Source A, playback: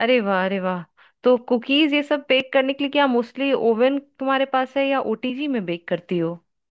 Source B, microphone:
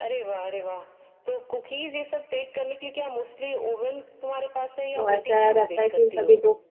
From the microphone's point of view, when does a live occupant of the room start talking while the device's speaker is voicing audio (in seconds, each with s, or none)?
5.0 s